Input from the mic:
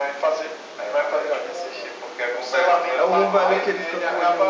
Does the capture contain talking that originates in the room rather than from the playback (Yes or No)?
Yes